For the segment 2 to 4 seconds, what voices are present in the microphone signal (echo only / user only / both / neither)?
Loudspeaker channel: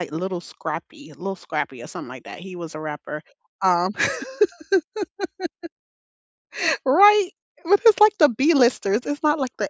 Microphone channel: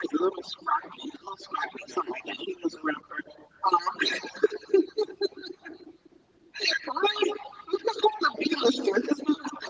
echo only